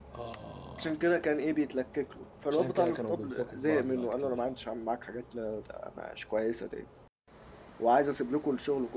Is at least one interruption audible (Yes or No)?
Yes